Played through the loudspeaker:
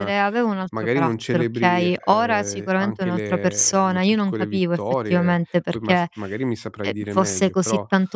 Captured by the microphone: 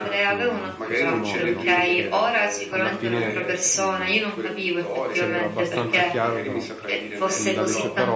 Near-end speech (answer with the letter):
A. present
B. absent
A